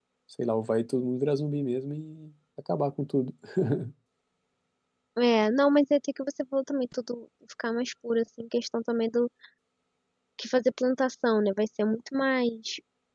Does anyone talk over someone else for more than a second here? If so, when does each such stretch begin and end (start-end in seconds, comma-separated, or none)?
none